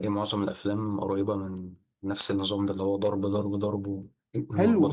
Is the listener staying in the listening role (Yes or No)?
No